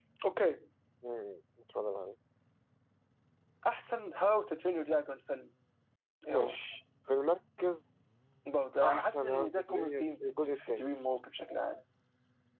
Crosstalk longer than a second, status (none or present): present